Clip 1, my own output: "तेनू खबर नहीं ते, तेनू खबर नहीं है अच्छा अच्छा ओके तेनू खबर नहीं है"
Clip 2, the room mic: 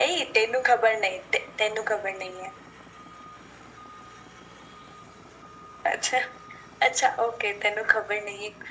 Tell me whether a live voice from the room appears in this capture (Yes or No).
No